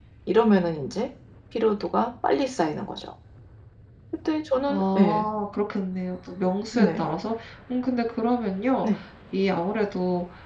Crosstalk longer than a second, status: none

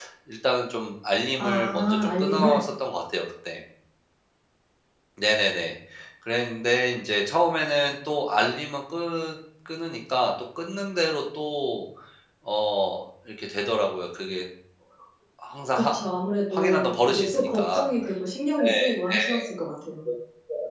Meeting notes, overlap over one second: present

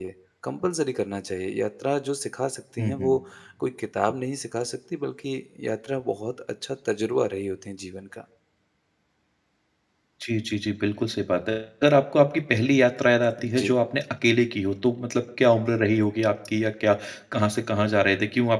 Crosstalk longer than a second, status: none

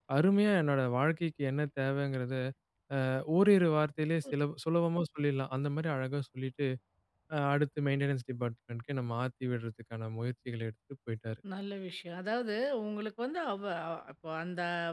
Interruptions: none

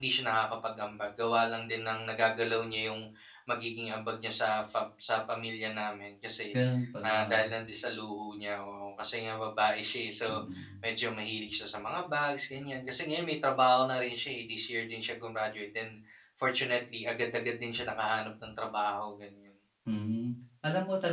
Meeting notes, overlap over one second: none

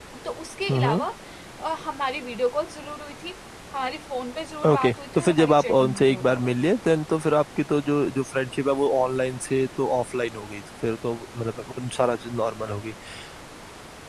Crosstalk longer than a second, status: present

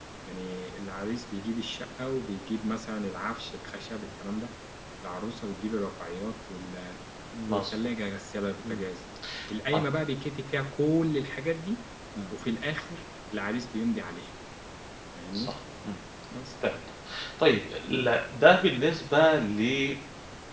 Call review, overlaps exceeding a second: none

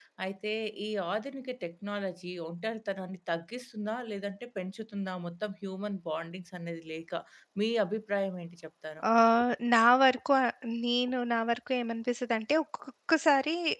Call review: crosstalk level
none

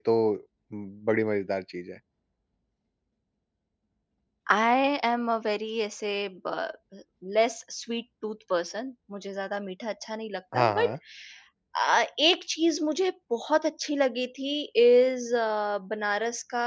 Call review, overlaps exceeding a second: none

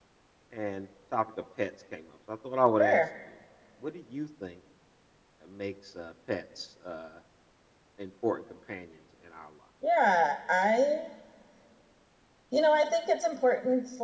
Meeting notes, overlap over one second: none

